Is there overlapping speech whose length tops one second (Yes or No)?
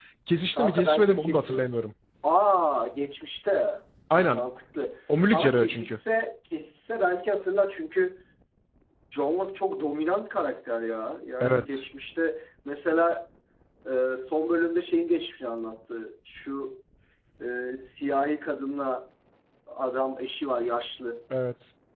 Yes